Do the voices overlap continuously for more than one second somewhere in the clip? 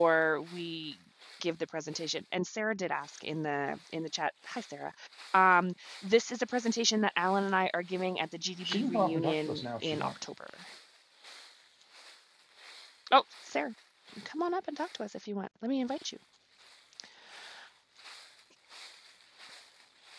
Yes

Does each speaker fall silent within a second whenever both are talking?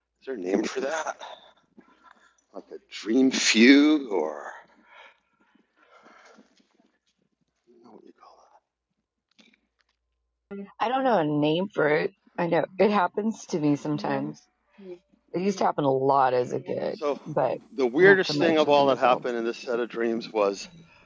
No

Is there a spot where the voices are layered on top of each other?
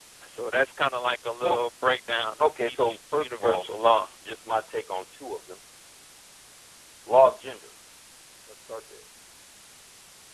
Yes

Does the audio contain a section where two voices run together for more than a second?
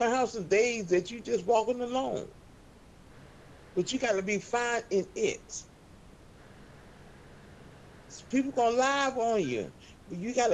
No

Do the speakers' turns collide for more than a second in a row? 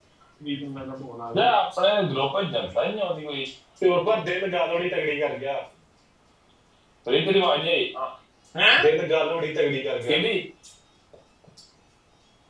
No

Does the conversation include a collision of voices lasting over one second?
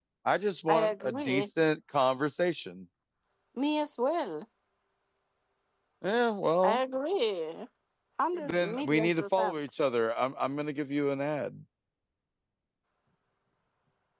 Yes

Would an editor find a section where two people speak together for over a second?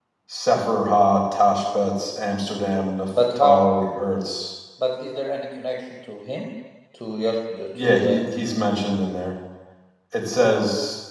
No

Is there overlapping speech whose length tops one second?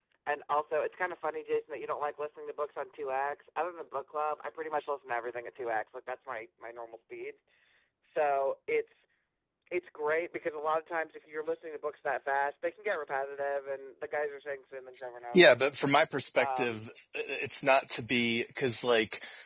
No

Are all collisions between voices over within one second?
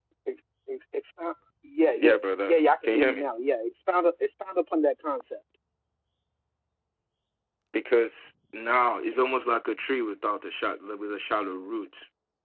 No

